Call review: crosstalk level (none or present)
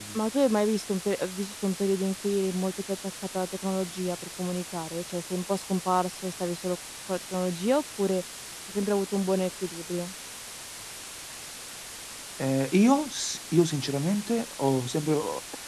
none